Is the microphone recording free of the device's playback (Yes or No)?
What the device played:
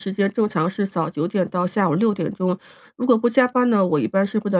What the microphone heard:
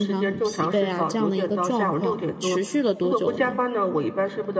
No